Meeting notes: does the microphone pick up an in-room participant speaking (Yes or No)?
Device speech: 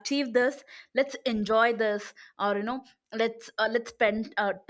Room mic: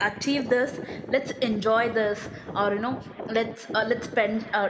No